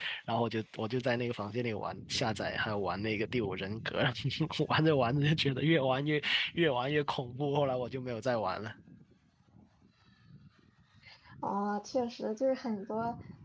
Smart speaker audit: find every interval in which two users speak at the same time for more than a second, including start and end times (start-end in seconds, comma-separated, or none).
none